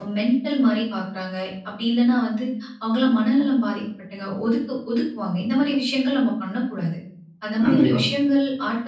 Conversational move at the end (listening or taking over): listening